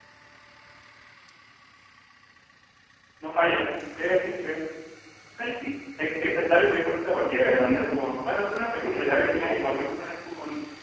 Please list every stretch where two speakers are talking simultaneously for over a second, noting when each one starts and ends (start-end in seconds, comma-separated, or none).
8.4-9.9